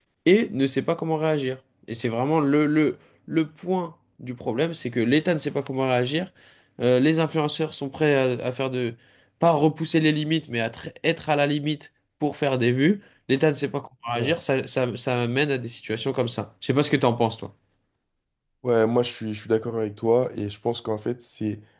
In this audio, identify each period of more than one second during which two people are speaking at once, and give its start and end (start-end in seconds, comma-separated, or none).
none